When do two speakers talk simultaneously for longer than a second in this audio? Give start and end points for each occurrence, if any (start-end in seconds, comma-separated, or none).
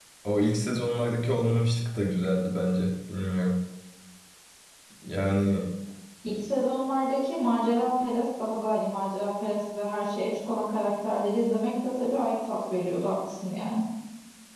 none